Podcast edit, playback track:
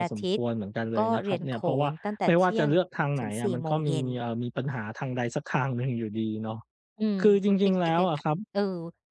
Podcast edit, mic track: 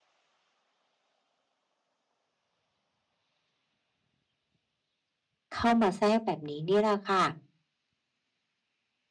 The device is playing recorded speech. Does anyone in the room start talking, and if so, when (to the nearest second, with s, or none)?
6 s